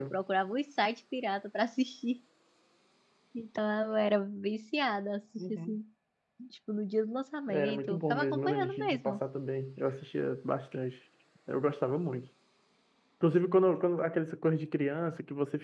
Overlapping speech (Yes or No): Yes